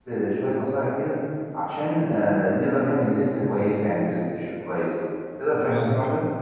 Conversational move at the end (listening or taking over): taking over